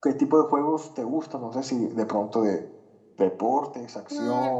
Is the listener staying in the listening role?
No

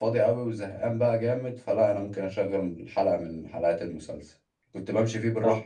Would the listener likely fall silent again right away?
Yes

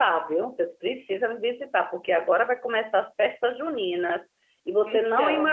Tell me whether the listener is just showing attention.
Yes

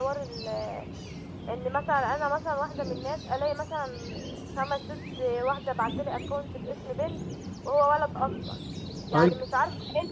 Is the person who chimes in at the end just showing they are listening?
Yes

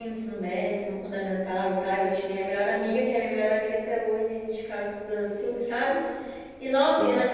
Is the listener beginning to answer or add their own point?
No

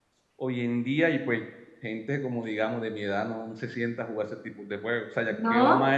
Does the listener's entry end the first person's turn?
No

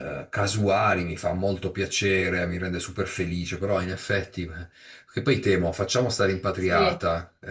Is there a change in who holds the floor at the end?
No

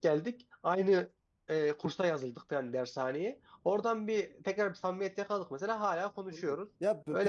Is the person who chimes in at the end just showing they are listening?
No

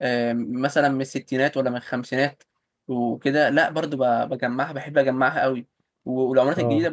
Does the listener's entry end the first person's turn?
No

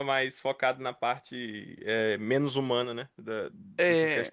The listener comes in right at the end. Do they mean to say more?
Yes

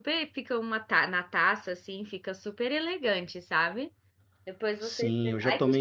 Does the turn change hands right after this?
Yes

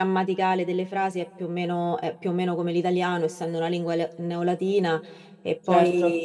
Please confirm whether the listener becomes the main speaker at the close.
No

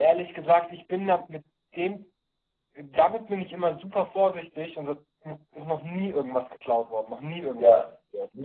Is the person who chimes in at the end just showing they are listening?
No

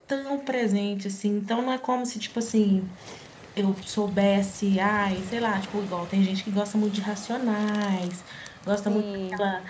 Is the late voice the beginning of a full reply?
No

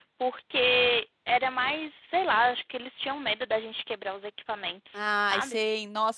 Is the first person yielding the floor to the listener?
Yes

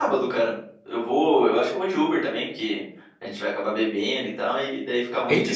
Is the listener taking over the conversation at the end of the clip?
Yes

